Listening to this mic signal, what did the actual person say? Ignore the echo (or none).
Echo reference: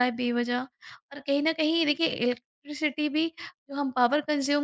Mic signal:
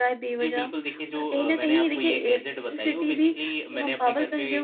जी, बिल्कुल देखिए जो अ, मैंने आपको ये गैजेट बताई वो बेसिकली मैंने अपने घर पे